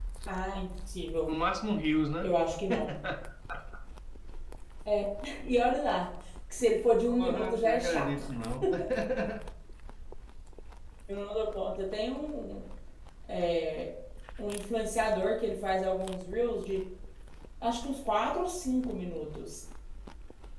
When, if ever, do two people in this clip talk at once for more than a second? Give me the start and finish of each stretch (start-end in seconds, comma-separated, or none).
7.0-8.3